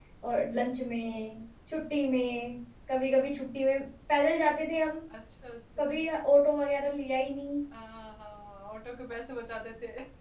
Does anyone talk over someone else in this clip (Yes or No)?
No